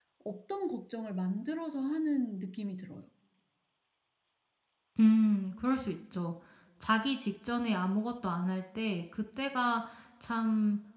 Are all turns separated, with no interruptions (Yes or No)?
Yes